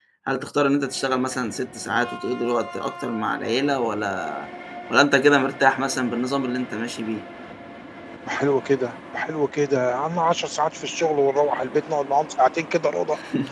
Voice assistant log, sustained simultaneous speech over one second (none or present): none